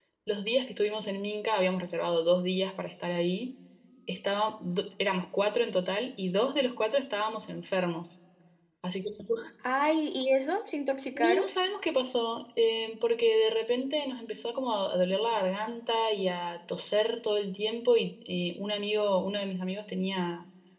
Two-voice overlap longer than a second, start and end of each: none

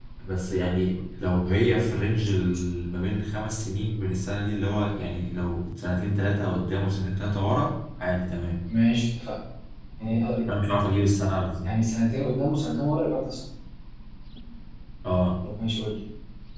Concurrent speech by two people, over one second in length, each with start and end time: none

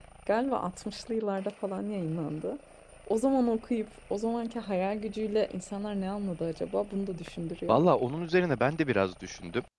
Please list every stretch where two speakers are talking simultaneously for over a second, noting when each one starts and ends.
none

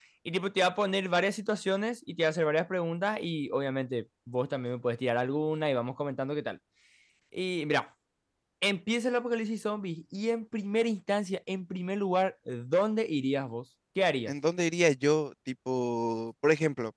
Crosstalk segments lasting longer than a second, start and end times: none

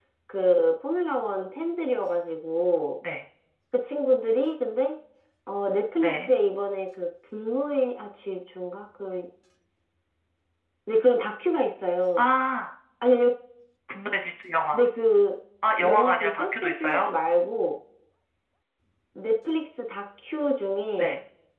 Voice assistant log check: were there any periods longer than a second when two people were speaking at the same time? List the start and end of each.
15.8-17.1

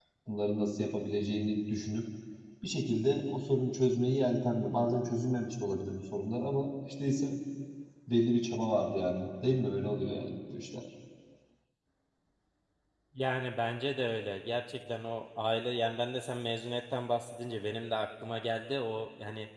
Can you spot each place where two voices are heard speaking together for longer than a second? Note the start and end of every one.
none

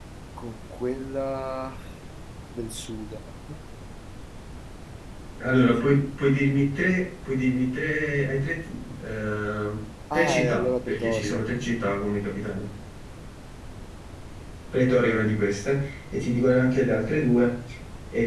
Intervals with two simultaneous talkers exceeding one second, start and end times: 10.1-11.4

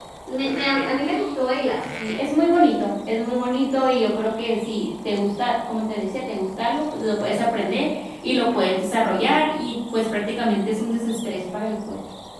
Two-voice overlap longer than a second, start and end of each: none

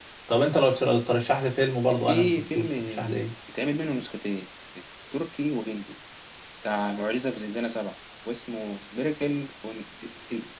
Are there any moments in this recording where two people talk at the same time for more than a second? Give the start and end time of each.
2.0-3.2

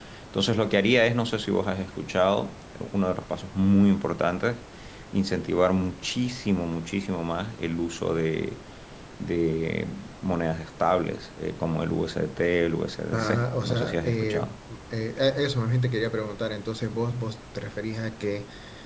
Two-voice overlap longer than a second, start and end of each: 13.1-14.5

